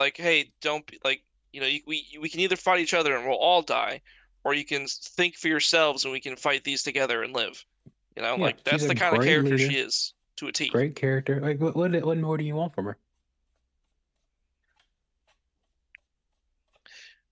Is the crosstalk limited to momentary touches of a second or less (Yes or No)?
No